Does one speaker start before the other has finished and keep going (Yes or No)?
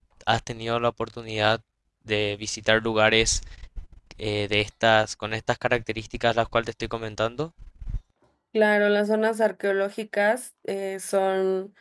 No